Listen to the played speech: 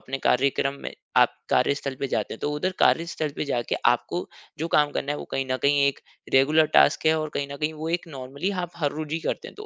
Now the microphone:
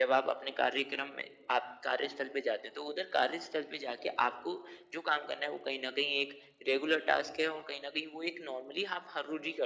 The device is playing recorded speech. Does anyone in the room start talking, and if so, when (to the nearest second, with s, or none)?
none